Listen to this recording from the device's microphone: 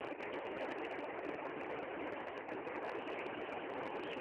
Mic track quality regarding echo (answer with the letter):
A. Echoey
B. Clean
B